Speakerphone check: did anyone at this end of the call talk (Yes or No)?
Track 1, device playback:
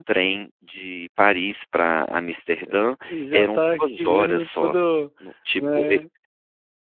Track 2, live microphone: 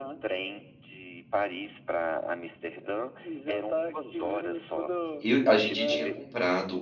Yes